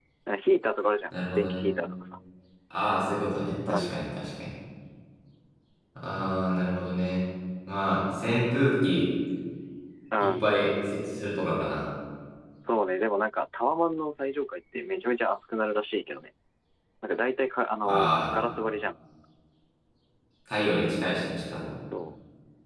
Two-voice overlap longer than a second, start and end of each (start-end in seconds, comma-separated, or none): none